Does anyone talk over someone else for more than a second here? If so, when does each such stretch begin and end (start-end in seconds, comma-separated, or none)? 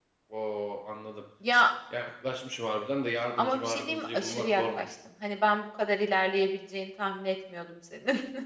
3.4-4.8